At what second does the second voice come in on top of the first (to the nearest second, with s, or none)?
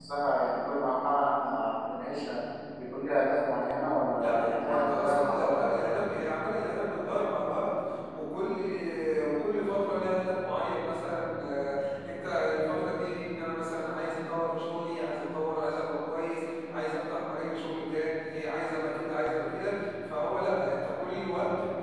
4 s